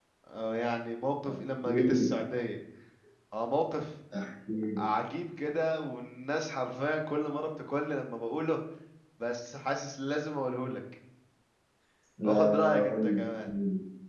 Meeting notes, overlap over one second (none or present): present